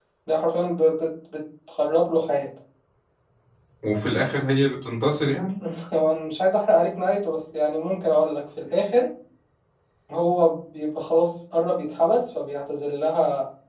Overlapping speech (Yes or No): No